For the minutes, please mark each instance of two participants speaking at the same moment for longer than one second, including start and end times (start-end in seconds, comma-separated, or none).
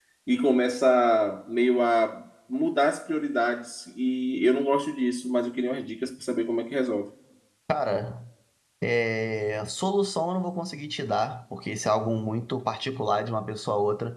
none